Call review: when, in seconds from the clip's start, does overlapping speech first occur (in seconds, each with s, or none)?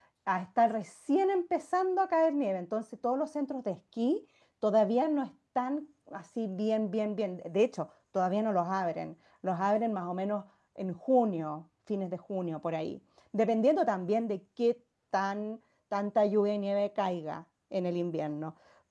none